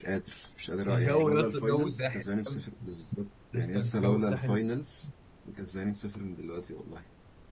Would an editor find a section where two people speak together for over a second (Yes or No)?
Yes